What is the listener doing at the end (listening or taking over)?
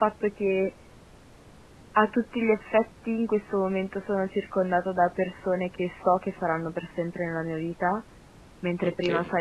listening